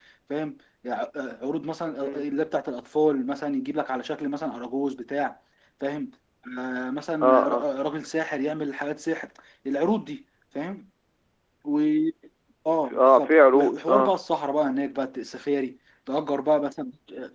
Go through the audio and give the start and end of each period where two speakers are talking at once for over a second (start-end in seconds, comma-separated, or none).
12.9-14.1